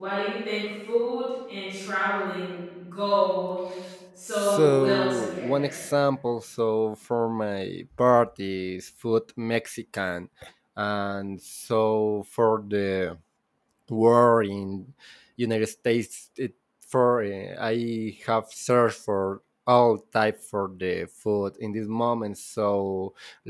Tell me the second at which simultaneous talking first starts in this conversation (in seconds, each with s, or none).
4.3 s